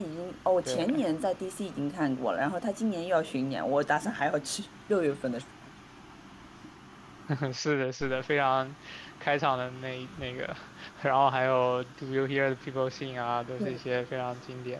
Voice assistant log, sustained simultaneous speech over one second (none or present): none